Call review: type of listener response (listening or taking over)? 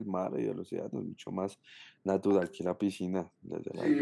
taking over